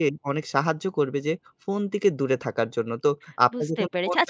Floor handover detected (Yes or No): Yes